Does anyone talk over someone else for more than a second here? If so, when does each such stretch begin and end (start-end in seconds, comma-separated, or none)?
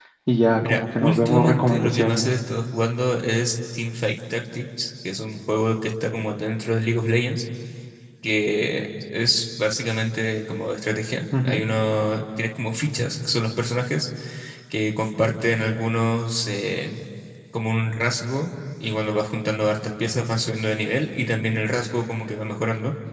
0.6-2.3